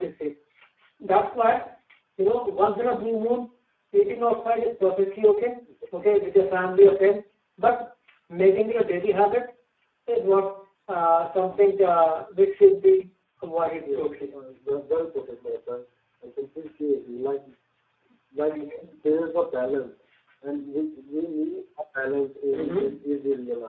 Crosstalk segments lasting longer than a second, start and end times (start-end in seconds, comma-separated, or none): none